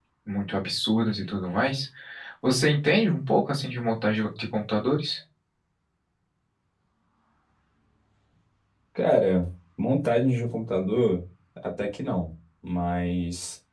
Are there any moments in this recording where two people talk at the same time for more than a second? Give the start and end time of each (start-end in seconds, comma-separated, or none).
none